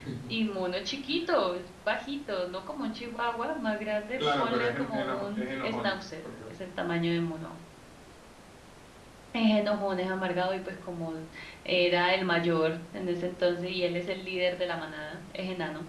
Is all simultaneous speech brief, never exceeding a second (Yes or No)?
No